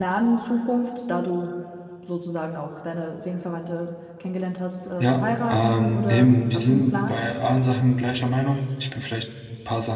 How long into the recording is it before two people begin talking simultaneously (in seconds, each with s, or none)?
5.0 s